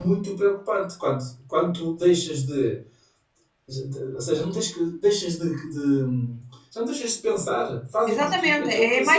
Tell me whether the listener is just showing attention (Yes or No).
No